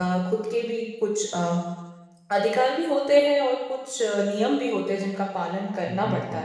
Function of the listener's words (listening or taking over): taking over